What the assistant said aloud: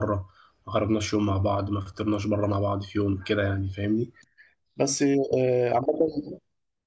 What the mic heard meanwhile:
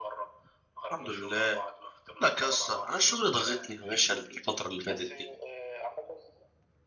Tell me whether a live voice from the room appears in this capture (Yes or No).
Yes